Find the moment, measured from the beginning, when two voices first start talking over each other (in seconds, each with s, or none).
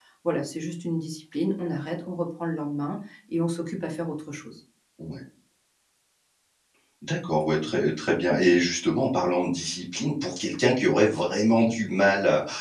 none